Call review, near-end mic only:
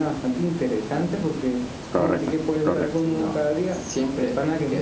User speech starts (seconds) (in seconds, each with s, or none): 1.9 s